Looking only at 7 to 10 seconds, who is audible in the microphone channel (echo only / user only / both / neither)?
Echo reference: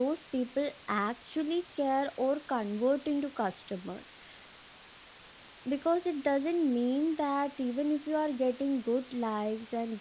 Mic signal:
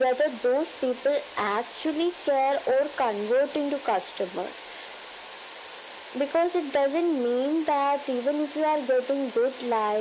echo only